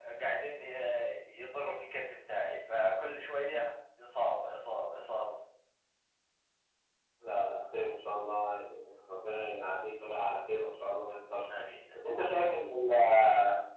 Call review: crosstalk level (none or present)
none